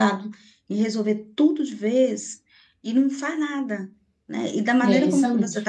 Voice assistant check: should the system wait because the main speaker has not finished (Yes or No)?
Yes